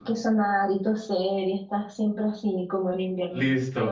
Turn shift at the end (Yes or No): Yes